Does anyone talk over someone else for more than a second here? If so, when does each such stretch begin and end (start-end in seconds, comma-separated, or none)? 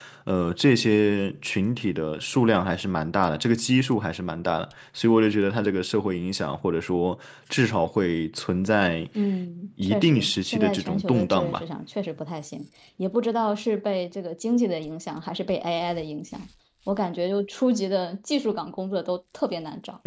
9.8-11.6